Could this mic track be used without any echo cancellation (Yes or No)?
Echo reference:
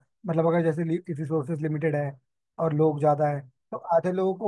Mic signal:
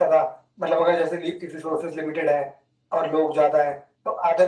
No